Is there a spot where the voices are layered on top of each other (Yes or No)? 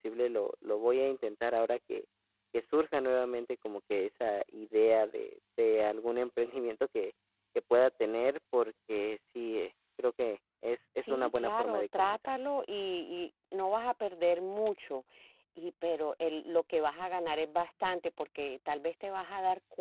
Yes